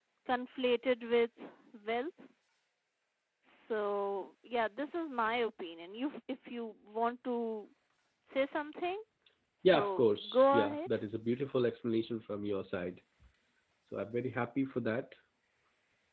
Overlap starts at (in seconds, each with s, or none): 9.6 s